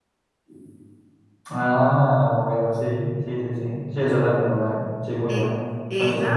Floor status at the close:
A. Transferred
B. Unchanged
A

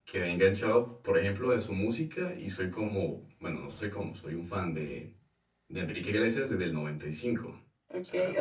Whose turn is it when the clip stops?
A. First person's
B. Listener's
B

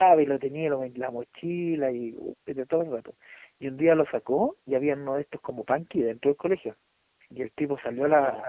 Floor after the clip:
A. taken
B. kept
B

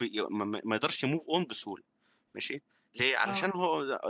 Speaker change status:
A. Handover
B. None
B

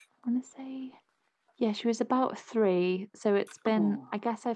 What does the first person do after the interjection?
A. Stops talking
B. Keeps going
B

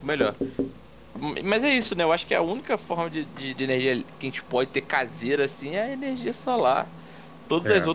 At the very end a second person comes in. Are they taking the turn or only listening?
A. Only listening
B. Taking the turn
A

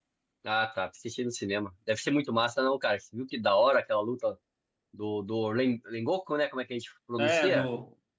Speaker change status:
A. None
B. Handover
B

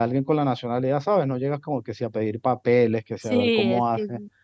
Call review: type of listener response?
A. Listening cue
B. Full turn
B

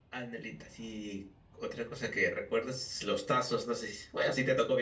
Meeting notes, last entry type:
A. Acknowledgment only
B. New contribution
A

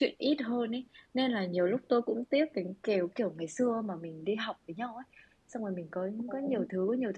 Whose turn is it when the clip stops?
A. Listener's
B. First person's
B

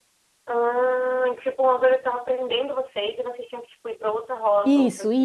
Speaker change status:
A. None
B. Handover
B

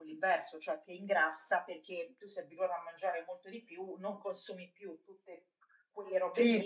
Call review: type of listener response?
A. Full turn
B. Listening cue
A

